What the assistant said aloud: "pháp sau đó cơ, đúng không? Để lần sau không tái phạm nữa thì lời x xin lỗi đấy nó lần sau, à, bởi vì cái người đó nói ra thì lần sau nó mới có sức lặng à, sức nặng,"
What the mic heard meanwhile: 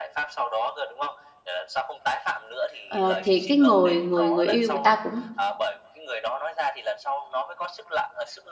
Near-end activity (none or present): present